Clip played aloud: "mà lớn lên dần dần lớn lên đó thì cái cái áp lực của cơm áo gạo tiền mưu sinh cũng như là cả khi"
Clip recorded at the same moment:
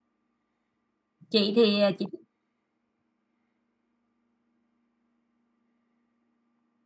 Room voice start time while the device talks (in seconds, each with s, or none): 1.3 s